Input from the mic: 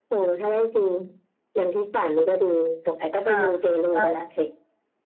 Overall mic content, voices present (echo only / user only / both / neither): both